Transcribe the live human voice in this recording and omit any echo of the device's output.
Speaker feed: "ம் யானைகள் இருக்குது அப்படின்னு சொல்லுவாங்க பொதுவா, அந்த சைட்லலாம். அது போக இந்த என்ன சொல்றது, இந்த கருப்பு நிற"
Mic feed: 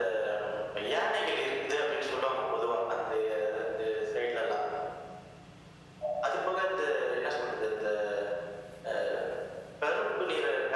none

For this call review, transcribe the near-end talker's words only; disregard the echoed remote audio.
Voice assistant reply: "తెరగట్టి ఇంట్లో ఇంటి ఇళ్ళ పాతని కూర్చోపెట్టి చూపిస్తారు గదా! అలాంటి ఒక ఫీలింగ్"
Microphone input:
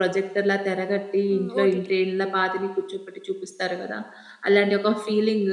హ్మ్. ఓటీటీ.

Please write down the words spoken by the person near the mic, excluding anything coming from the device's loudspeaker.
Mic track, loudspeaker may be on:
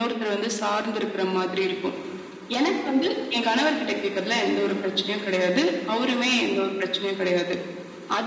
none

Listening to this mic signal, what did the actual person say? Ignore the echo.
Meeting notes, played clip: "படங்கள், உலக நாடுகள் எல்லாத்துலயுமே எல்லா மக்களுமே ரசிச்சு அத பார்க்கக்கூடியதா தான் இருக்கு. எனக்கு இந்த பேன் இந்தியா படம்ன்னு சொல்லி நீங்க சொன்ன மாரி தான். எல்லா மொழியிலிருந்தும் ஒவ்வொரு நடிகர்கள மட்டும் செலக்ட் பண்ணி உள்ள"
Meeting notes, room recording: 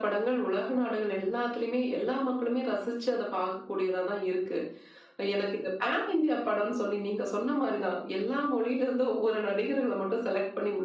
none

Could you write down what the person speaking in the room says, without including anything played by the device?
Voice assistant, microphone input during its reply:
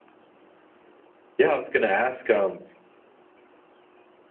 Yeah, I was gonna ask, um,

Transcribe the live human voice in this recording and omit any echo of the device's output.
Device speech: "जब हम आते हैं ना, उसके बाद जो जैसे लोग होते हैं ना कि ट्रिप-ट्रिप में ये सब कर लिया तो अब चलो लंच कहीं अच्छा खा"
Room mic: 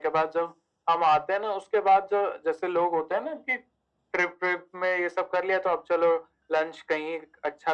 none

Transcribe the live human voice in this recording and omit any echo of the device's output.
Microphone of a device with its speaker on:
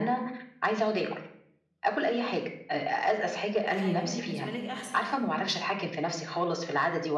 آه، هيكون بالنسبة لِك أحسن.

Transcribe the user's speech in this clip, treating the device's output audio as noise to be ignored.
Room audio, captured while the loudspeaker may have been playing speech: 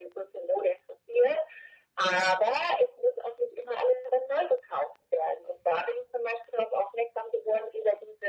none

